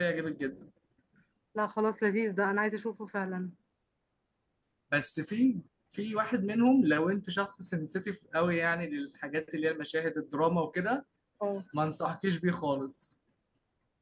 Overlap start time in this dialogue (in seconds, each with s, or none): none